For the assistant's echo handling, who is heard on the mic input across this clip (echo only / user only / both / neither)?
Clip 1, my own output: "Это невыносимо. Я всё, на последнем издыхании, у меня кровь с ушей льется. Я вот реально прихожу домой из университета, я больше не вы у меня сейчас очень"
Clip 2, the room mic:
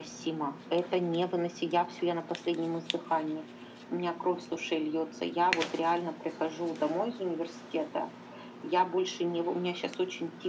echo only